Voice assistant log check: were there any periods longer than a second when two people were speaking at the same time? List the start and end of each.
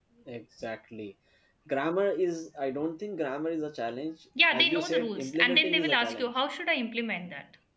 4.6-6.3

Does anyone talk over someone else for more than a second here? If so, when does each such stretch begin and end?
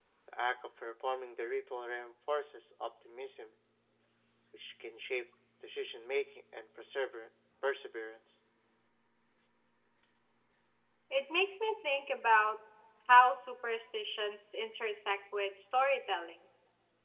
none

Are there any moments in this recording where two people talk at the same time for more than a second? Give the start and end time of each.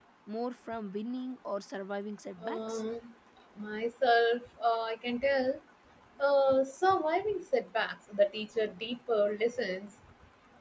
none

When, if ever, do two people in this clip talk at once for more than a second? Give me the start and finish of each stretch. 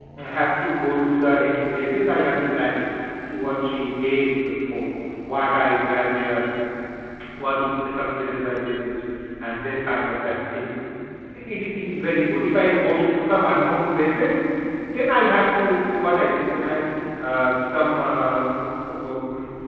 none

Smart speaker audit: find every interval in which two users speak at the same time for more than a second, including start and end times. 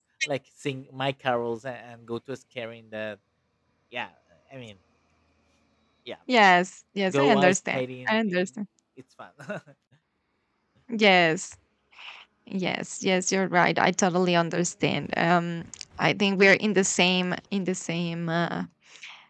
7.1-8.5

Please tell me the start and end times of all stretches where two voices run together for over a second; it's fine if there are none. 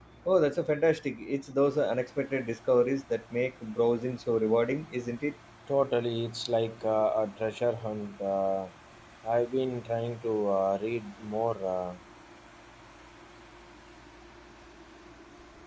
none

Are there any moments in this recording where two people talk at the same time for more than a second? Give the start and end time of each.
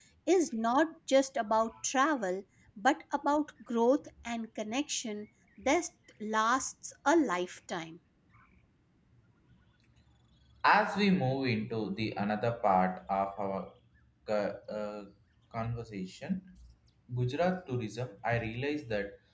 none

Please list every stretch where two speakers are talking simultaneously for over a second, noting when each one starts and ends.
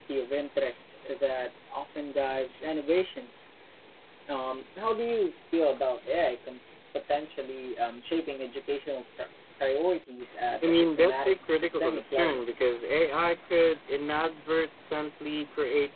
10.7-12.4

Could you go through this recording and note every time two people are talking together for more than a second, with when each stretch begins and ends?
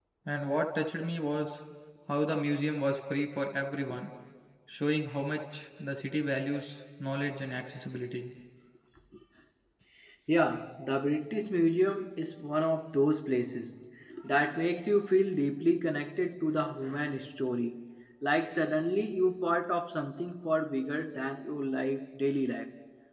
none

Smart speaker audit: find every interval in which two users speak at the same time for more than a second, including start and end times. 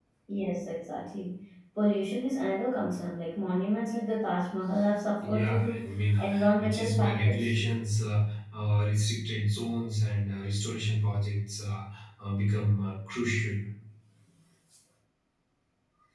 5.2-7.5

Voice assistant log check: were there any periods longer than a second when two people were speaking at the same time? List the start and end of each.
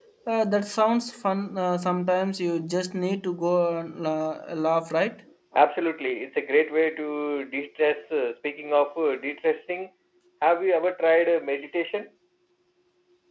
none

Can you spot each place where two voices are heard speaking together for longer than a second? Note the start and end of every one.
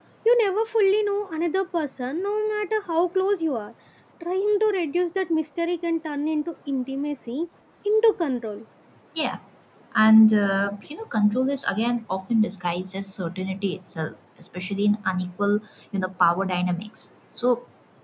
none

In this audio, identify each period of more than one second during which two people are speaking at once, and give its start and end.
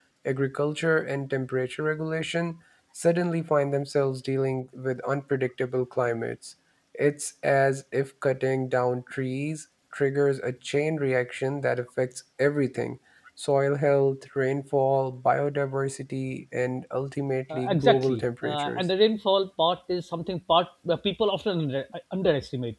17.5-18.8

